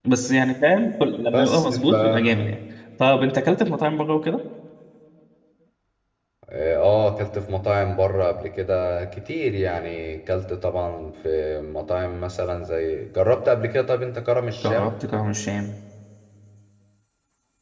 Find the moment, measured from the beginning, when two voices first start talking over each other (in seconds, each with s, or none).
1.3 s